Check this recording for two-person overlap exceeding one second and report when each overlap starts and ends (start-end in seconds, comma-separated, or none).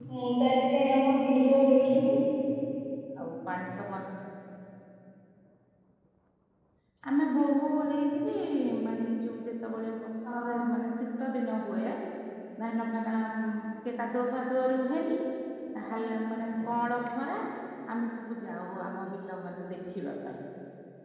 none